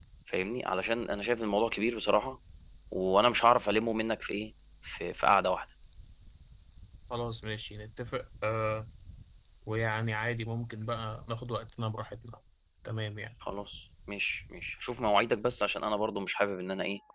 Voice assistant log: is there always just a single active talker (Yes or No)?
Yes